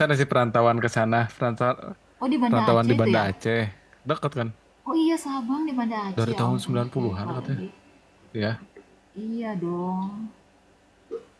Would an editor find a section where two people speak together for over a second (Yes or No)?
Yes